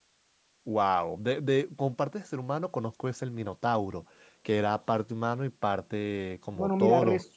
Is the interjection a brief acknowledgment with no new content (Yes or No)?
No